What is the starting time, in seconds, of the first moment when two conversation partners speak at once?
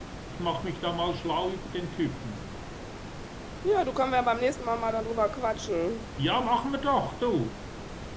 none

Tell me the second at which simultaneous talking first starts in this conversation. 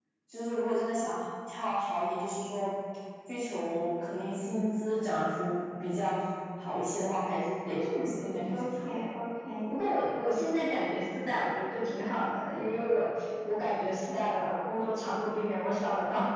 7.7 s

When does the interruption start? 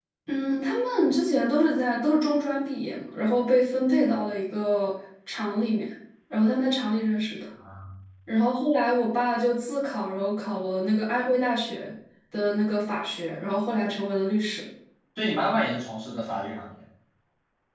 none

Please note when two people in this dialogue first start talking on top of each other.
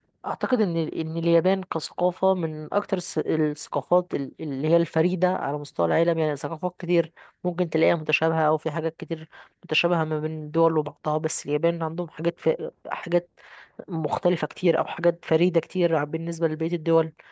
none

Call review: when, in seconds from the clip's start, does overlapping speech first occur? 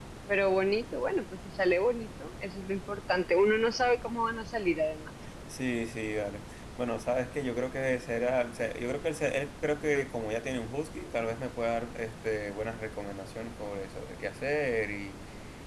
none

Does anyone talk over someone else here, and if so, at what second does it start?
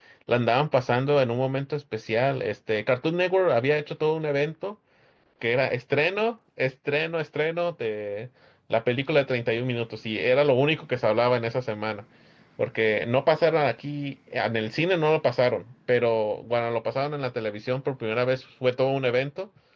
none

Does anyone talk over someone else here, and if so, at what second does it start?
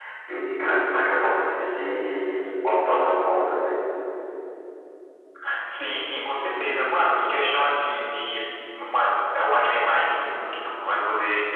none

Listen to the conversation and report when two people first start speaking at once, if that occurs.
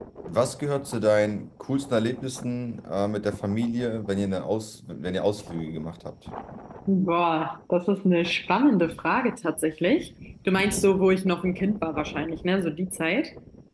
none

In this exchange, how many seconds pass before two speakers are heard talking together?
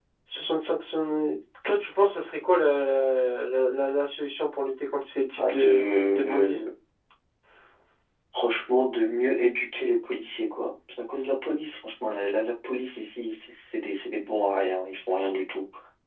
5.4 s

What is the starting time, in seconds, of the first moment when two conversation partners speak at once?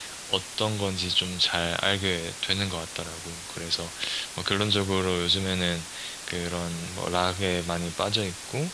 none

